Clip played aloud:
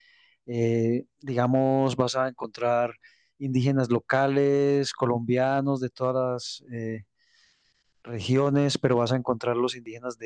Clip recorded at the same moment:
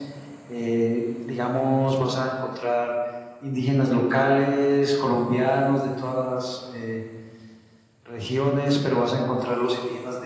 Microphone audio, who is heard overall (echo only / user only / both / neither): echo only